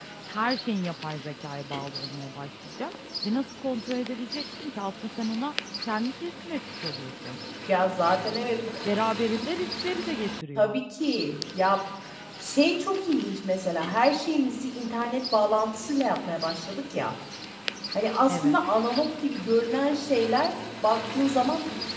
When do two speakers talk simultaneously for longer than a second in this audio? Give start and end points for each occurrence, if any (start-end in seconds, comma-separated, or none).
none